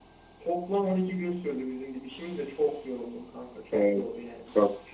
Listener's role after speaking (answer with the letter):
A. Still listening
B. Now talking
B